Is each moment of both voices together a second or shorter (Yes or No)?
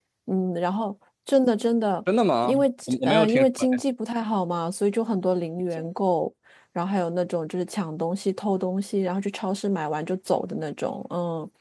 No